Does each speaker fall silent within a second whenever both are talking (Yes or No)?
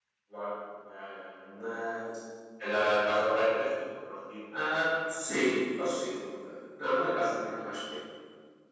Yes